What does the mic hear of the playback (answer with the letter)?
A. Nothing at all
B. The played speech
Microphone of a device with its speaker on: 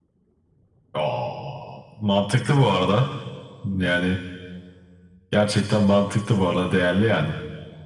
B